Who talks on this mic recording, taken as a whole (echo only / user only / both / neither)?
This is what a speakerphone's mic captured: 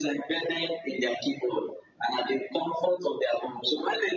echo only